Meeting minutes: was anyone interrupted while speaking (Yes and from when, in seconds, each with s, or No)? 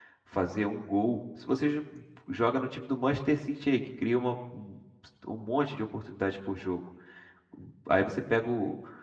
No